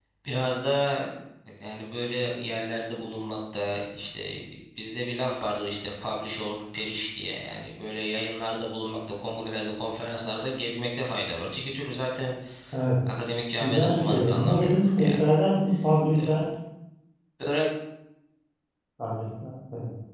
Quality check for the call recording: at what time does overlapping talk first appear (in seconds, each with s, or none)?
13.6 s